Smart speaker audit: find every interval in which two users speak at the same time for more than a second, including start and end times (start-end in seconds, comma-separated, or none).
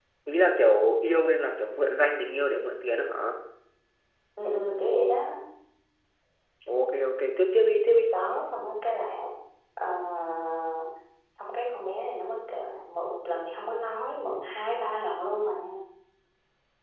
none